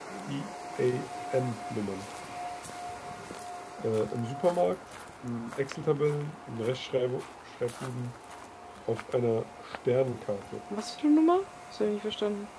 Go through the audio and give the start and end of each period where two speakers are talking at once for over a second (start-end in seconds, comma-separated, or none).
none